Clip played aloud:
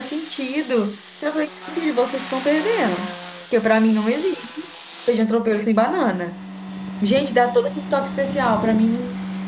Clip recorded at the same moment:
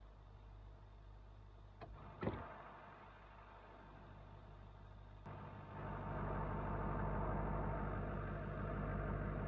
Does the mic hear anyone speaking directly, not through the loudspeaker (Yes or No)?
No